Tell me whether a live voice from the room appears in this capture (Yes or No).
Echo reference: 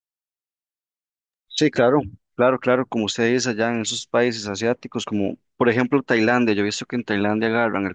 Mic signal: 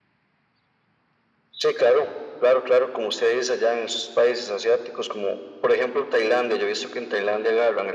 No